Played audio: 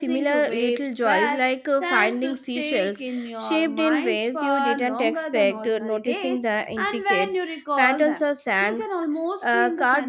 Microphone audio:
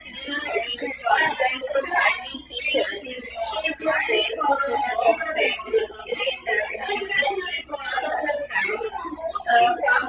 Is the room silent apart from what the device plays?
Yes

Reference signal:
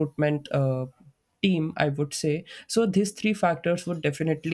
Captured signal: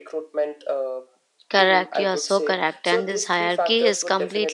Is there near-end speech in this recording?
Yes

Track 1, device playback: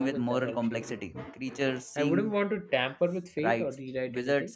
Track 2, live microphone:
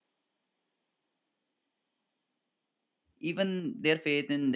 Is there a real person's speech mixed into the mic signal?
Yes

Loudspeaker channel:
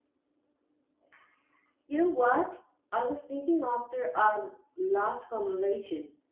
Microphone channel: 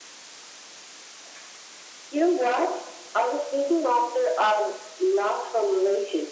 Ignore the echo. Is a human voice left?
No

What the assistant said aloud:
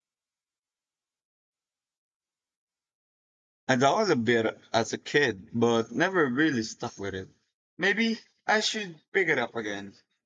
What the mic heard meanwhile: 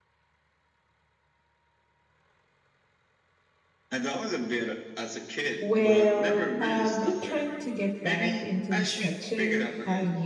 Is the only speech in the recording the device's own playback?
No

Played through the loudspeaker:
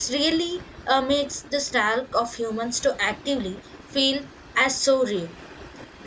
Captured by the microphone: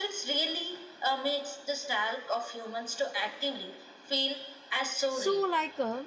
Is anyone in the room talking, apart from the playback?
Yes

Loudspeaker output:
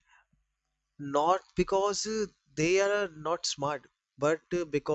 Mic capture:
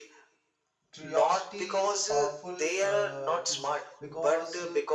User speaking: Yes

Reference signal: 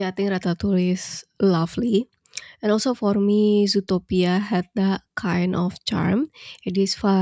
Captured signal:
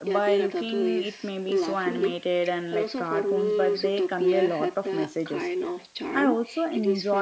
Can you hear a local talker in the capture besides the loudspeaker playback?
Yes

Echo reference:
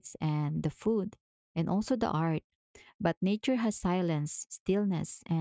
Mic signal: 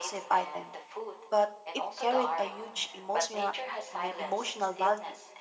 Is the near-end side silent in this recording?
No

